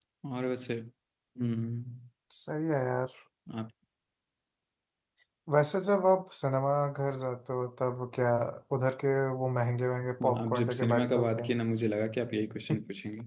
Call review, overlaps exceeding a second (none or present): present